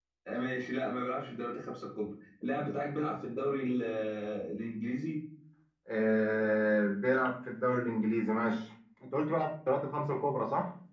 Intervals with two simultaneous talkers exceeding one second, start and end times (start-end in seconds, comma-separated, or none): none